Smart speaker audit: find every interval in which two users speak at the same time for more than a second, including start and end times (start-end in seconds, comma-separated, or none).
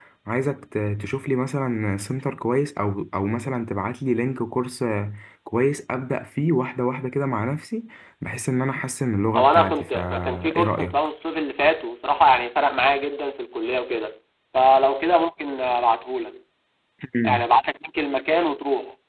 9.3-11.0